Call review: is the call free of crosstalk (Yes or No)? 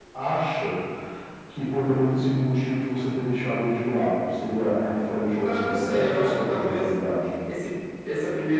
No